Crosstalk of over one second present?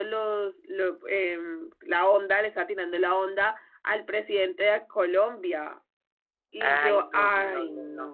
Yes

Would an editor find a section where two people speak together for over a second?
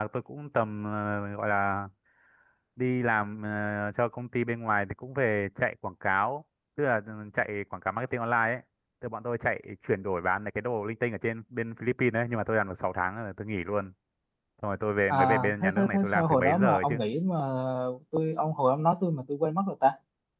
Yes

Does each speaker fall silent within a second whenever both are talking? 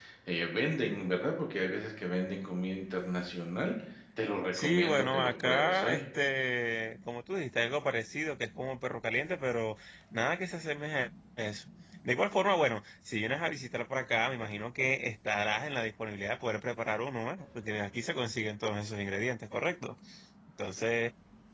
No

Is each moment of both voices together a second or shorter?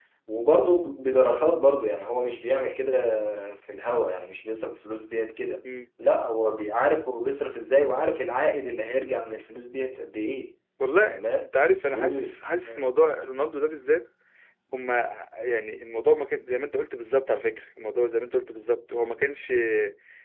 Yes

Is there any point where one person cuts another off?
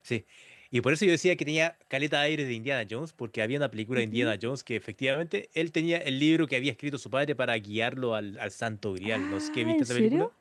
Yes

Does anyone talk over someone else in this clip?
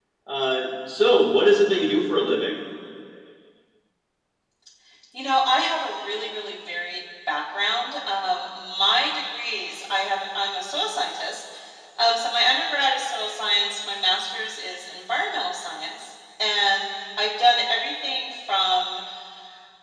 No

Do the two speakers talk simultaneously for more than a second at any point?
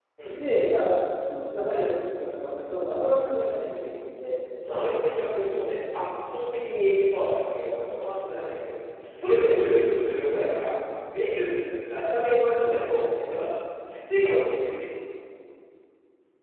No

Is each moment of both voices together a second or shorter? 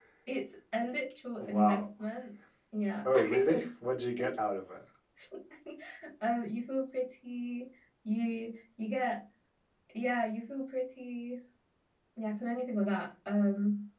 Yes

